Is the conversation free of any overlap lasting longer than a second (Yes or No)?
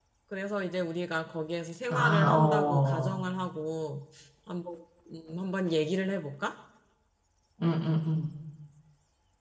No